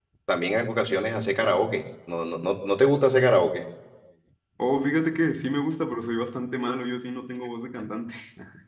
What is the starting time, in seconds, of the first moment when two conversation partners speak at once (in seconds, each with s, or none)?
none